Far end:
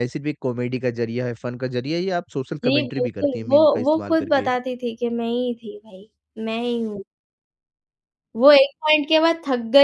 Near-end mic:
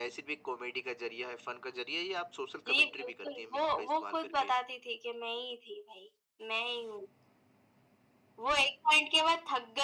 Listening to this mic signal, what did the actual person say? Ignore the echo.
none

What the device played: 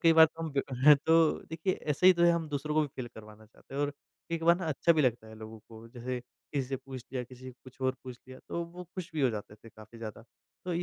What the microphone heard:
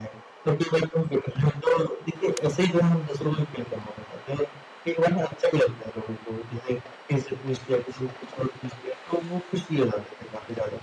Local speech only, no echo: none

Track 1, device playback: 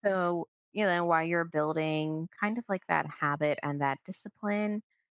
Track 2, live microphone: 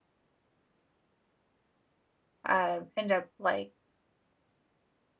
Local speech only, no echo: uh, end up, like,

